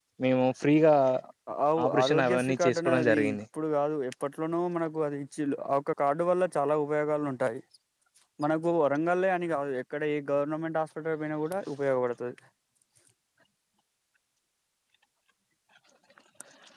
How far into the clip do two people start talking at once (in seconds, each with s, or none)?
1.8 s